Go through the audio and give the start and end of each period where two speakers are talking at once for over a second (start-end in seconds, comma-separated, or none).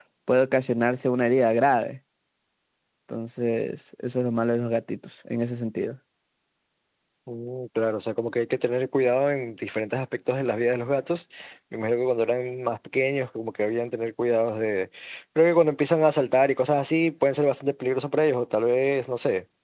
none